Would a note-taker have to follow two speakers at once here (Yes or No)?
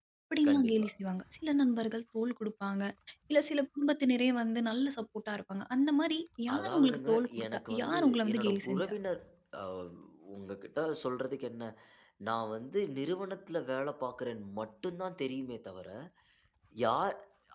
Yes